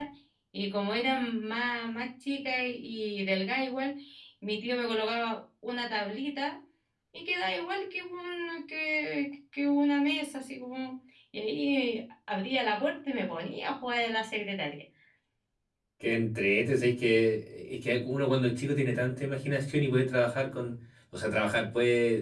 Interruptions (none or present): none